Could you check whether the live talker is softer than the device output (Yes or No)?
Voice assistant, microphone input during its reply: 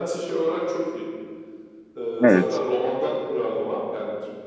No